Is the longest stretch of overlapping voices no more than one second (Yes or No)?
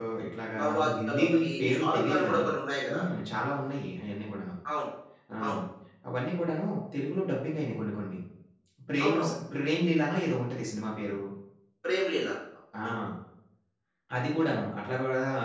No